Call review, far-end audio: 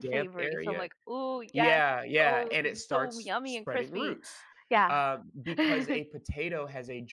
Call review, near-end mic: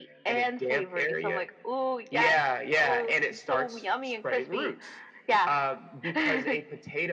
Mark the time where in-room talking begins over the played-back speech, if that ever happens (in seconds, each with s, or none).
none